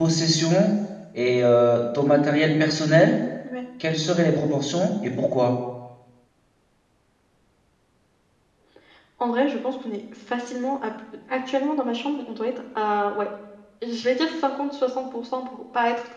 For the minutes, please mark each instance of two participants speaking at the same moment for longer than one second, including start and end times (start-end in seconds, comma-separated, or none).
none